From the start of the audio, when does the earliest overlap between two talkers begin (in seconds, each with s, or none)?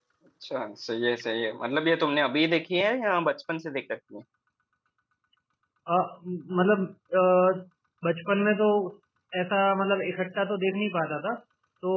none